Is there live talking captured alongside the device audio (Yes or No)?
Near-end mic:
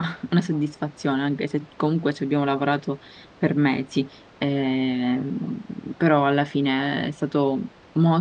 Yes